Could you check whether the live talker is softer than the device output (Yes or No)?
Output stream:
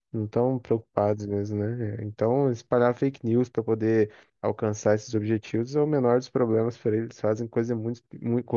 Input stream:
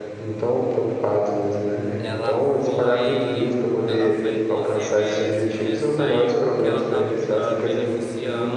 Yes